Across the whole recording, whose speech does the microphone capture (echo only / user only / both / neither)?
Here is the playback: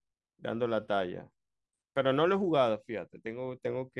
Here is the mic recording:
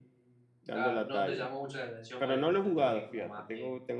both